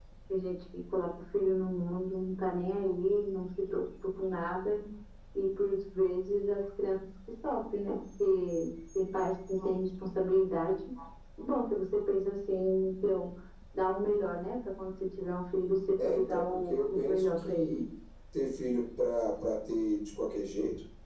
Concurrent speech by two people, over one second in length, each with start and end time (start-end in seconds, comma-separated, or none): 16.0-17.8